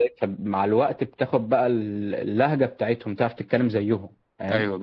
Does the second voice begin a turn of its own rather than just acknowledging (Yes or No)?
Yes